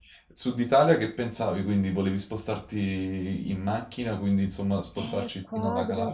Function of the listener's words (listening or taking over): taking over